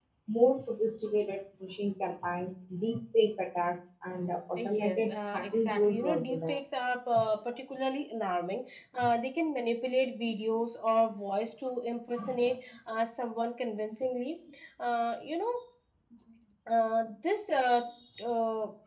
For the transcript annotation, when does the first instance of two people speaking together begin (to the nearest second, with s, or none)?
5 s